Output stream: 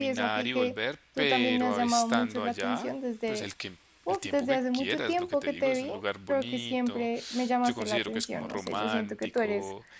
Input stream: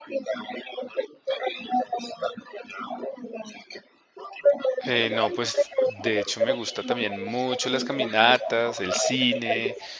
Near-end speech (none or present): present